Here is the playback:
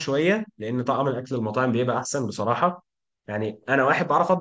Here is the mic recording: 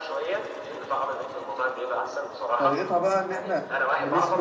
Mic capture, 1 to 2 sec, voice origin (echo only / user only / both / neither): echo only